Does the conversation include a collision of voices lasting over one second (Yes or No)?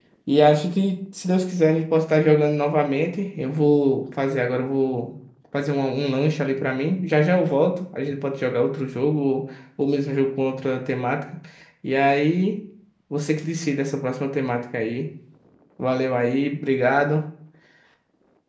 No